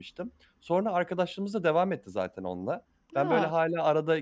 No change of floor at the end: Yes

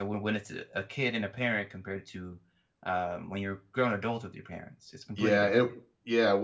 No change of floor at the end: No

